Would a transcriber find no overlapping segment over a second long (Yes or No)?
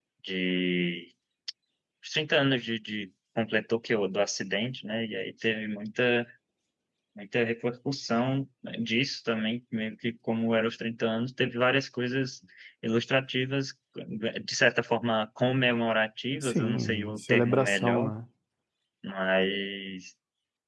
No